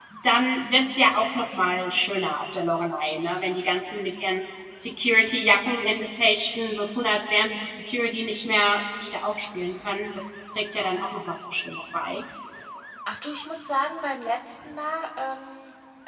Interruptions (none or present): none